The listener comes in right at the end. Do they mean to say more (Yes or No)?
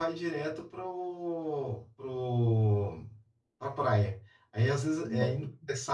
No